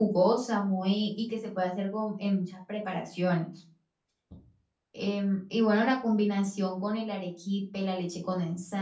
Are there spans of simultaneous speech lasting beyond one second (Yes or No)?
No